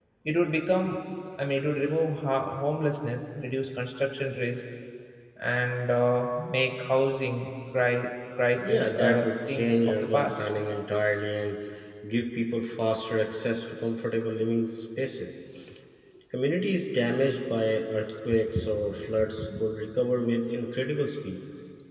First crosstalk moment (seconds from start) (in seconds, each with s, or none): 8.6 s